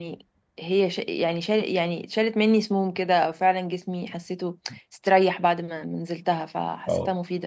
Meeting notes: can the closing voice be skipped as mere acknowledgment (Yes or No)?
Yes